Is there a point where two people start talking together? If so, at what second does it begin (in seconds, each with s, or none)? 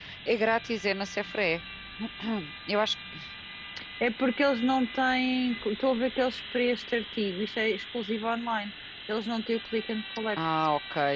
none